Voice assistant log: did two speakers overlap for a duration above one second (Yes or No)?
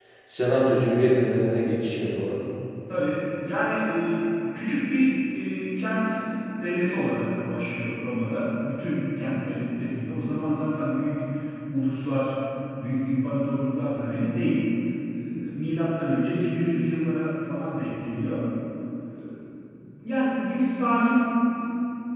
No